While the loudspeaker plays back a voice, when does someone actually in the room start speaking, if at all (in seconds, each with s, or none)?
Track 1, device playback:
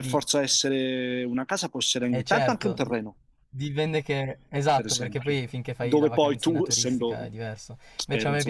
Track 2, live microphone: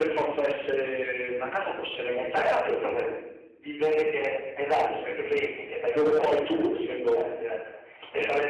none